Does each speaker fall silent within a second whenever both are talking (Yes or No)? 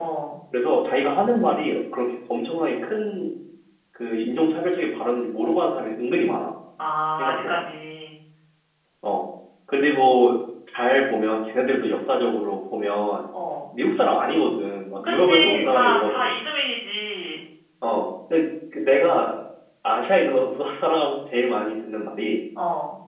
No